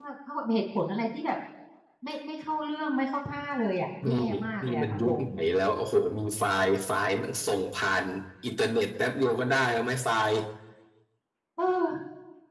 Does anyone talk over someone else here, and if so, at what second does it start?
4.0 s

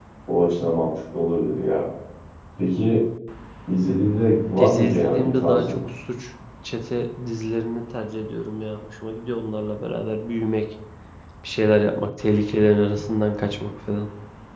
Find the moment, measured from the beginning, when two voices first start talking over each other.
4.6 s

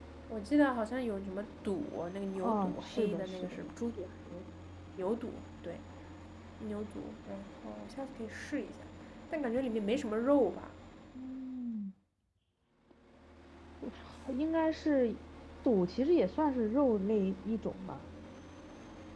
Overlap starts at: 2.4 s

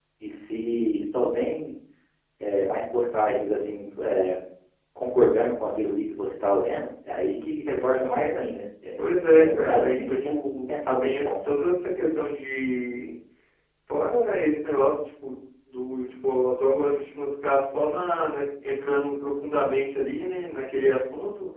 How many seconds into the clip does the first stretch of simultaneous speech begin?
9.0 s

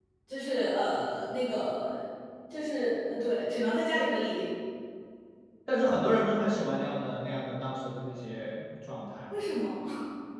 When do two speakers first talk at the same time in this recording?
none

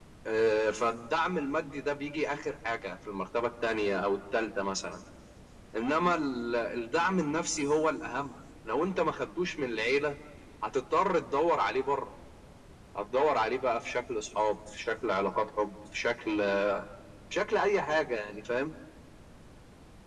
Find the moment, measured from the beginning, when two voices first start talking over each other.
none

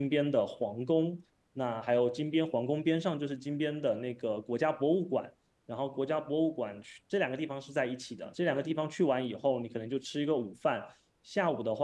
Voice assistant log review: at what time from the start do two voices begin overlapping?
none

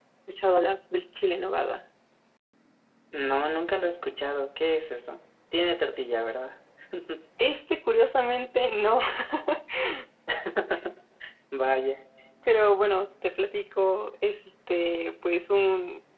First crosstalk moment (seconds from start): none

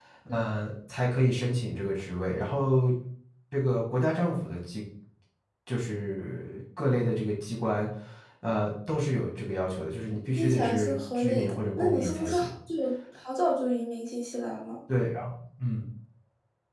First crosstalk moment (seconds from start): 10.4 s

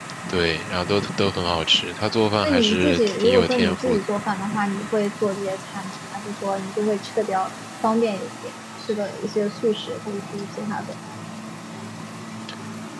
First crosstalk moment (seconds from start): 2.4 s

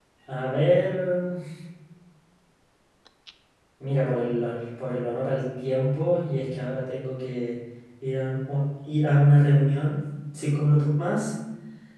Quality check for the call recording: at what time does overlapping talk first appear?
none

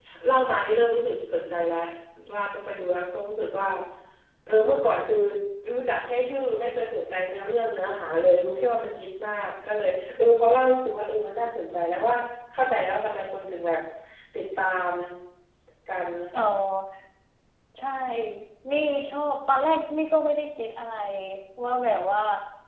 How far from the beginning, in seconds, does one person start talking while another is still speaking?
none

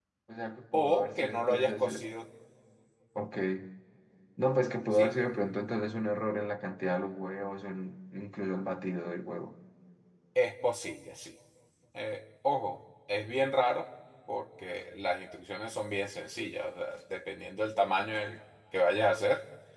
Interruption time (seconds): 0.7 s

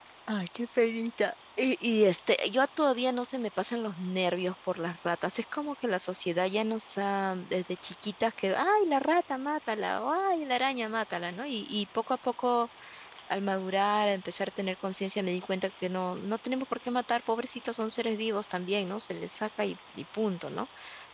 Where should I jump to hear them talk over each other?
none

